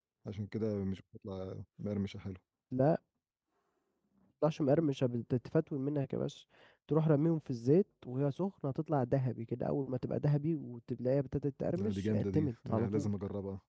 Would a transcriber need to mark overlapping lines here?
Yes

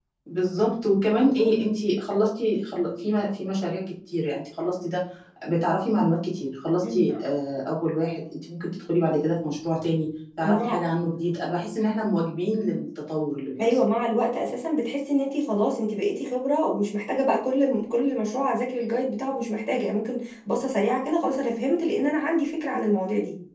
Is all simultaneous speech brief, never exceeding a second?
Yes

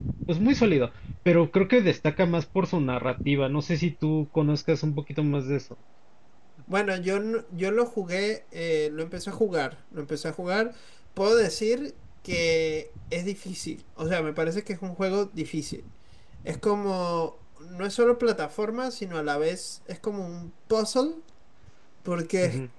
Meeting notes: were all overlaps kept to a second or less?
Yes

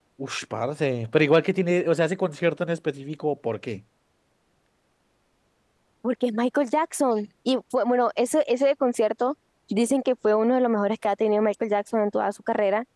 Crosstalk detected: No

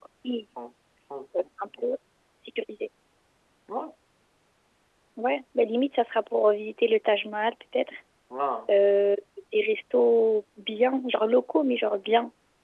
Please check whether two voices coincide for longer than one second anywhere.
No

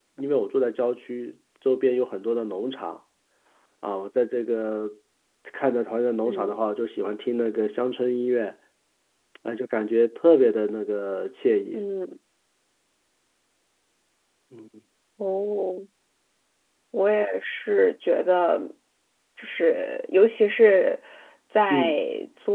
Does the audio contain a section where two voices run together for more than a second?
No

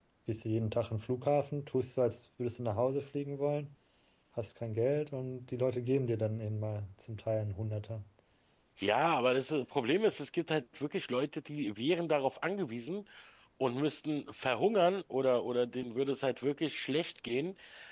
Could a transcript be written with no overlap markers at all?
Yes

